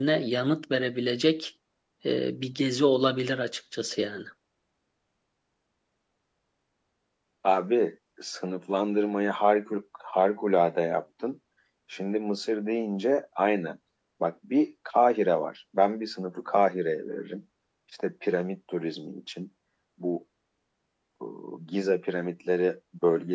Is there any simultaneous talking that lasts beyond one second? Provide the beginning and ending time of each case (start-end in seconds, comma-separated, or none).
none